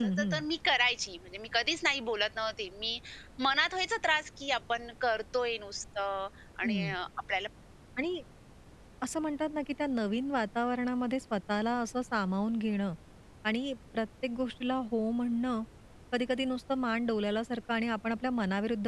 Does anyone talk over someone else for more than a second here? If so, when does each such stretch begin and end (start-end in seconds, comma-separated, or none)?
none